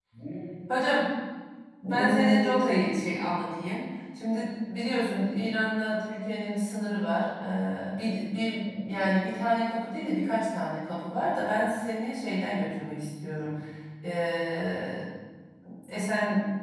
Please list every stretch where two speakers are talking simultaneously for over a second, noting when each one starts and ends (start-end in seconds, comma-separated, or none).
1.8-3.2